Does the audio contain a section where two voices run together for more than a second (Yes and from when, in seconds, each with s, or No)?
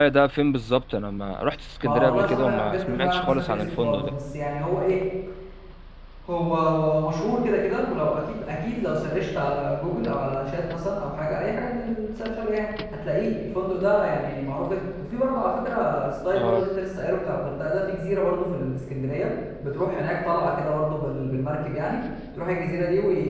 Yes, from 1.8 s